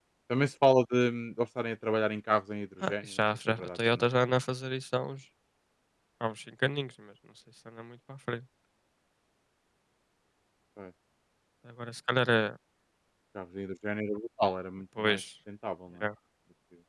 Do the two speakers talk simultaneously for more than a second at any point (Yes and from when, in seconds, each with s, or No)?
Yes, from 2.8 s